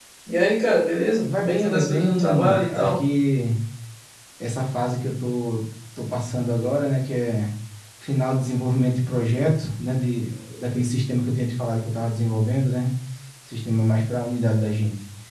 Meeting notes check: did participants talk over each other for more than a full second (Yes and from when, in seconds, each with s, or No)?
Yes, from 1.2 s